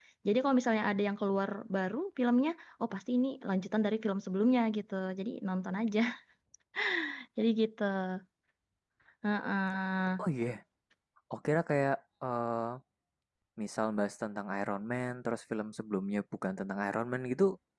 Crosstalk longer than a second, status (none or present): none